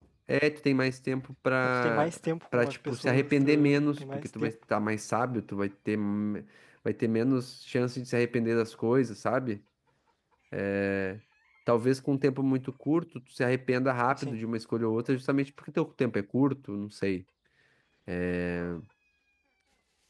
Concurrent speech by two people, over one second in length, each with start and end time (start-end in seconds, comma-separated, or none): 2.6-4.5